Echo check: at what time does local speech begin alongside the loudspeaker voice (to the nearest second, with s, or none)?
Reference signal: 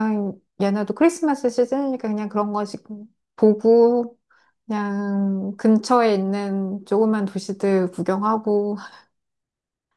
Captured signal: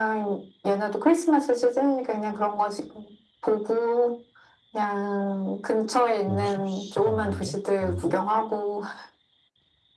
6 s